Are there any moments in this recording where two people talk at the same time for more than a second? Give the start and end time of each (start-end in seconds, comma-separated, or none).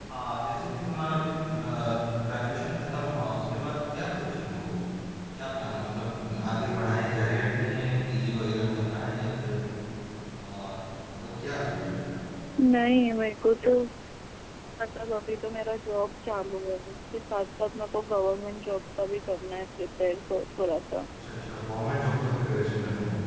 none